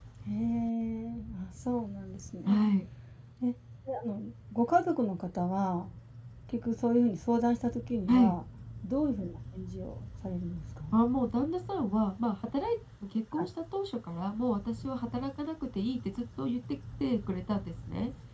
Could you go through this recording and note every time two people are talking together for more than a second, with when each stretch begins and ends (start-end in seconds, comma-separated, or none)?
none